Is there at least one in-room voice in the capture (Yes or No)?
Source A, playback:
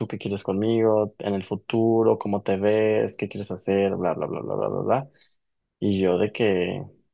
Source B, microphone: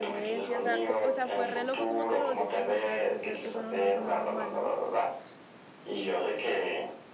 Yes